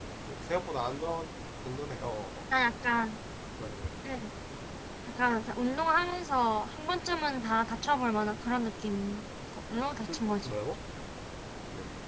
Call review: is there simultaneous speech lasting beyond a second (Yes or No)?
No